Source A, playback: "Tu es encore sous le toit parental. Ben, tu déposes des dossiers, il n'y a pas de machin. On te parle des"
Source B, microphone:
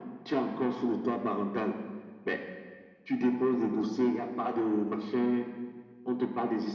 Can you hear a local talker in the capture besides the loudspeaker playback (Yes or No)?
No